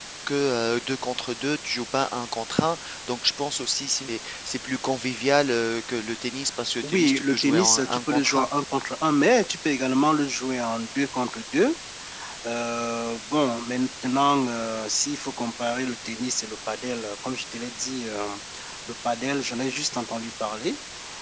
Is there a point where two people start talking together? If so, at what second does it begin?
6.8 s

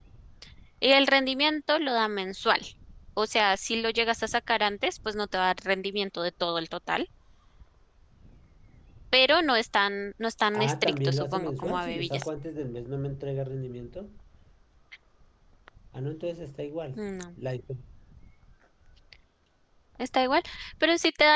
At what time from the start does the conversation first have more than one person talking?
10.5 s

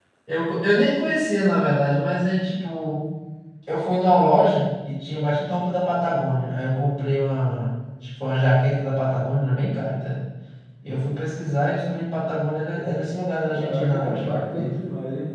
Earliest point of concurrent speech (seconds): 13.5 s

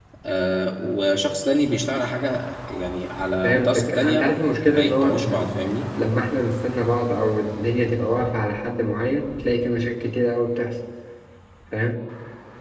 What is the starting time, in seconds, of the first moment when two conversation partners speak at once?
3.4 s

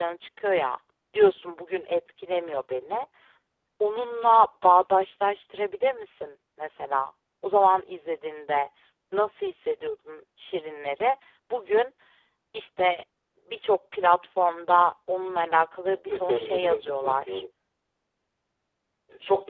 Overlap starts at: 16.1 s

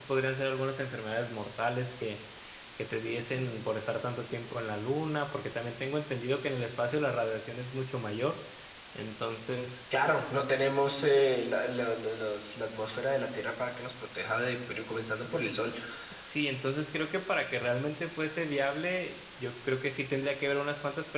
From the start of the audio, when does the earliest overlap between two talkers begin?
none

